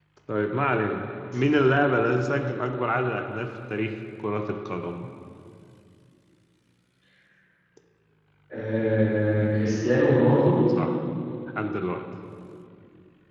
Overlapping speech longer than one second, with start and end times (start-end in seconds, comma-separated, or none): none